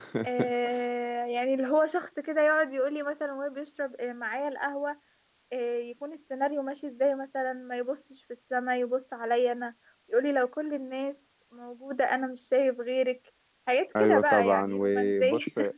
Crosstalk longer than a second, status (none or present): present